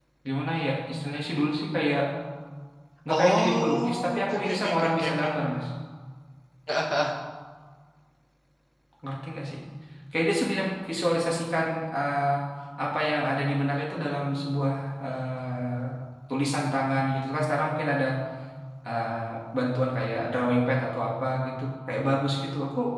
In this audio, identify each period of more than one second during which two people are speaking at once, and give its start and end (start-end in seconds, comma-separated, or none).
3.1-5.3